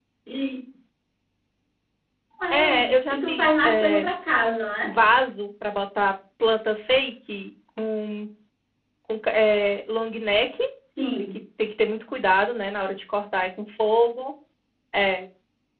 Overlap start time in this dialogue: 2.5 s

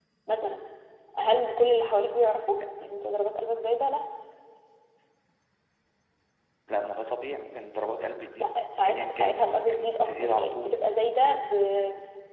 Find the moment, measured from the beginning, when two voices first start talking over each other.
8.9 s

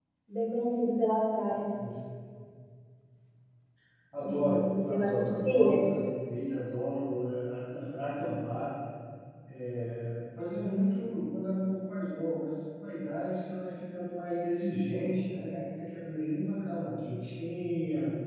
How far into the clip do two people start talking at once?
4.2 s

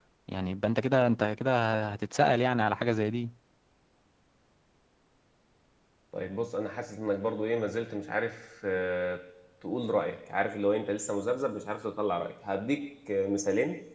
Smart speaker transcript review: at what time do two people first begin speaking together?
none

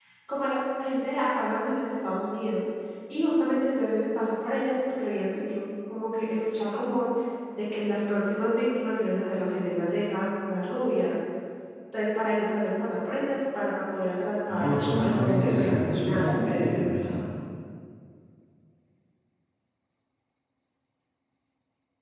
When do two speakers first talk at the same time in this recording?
14.5 s

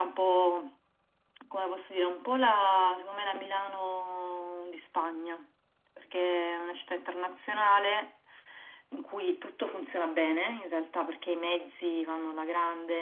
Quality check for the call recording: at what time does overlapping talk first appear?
none

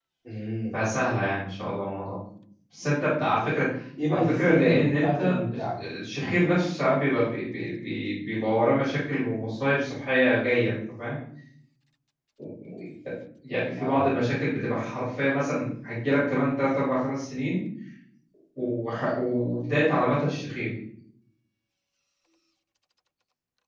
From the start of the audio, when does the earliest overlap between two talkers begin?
4.1 s

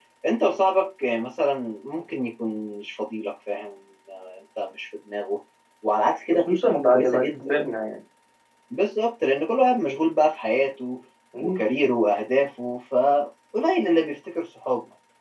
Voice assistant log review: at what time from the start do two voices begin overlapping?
6.3 s

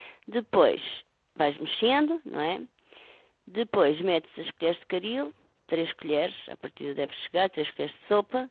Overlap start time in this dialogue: none

